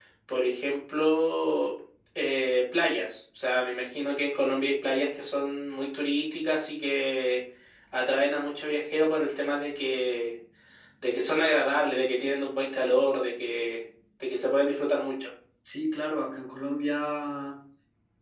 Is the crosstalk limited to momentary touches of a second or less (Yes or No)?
Yes